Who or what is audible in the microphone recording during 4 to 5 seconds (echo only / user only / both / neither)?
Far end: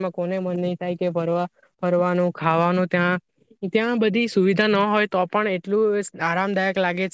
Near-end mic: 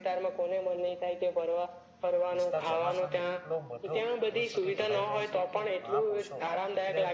both